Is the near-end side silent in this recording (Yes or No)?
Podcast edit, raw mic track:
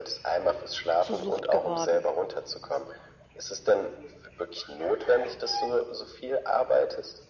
No